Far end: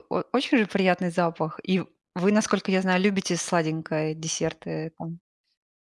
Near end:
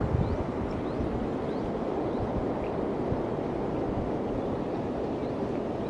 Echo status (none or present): none